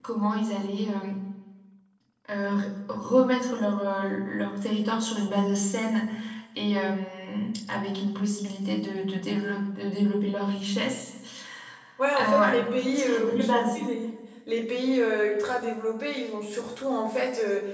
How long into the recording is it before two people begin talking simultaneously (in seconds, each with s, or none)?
12.2 s